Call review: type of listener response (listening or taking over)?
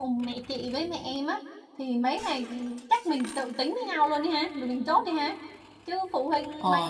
taking over